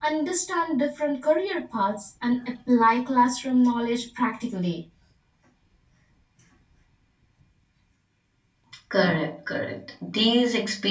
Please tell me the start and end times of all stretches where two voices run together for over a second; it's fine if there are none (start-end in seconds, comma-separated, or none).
none